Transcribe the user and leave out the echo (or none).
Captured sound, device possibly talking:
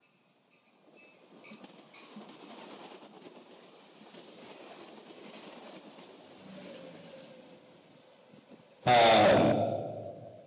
um